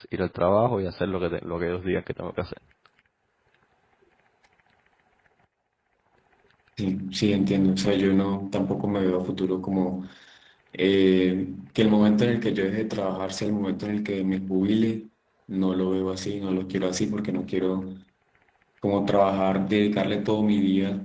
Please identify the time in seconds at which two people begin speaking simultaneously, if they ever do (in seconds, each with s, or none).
none